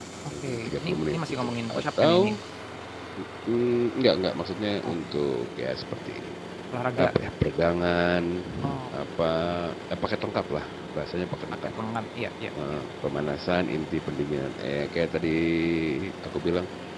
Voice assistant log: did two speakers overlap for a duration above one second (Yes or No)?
Yes